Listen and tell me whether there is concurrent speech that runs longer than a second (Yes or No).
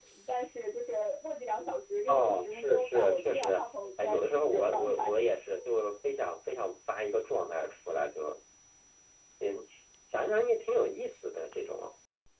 Yes